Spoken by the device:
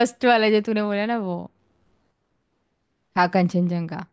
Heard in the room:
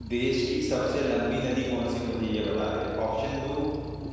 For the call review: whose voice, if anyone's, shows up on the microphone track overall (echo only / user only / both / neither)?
user only